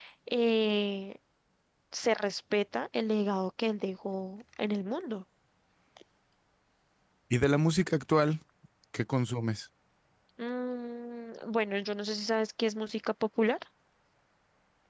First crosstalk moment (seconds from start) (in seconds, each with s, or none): none